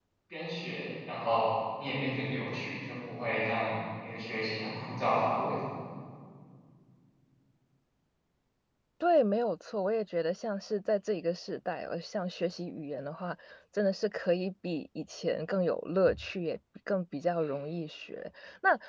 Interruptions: none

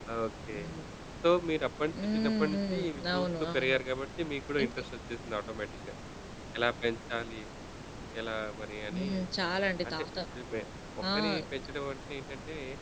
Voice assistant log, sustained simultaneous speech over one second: present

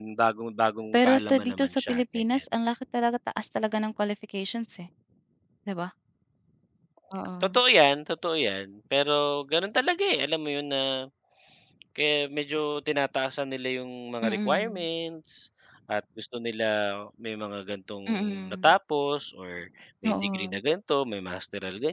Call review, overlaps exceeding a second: present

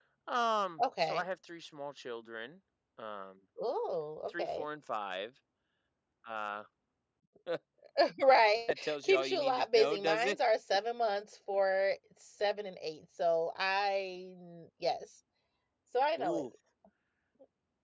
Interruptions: present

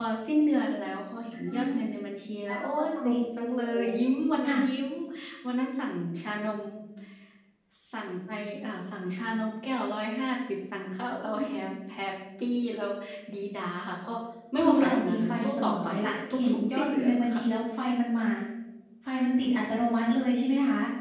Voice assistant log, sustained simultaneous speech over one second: present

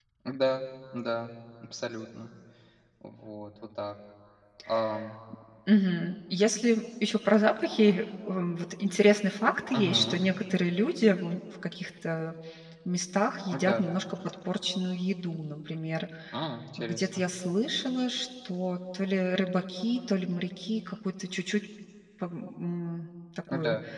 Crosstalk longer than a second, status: none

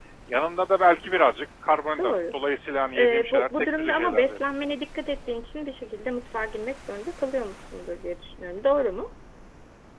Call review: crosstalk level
present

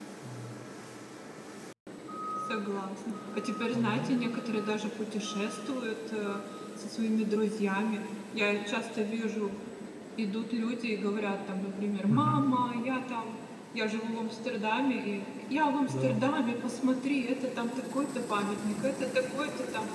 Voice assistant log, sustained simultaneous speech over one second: none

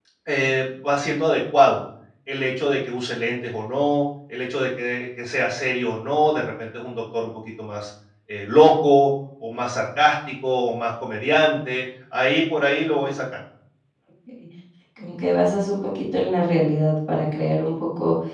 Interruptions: none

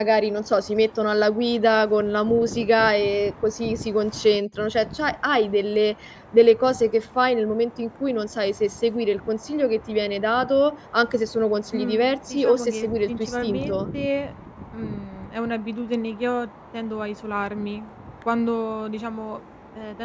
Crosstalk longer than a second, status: present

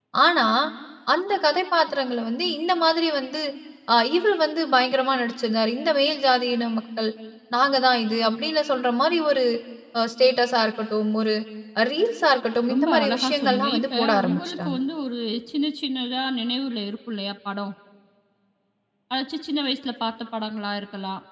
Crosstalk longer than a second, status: present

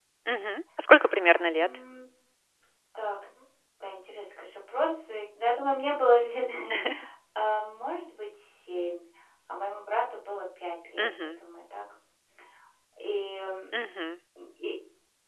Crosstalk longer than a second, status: none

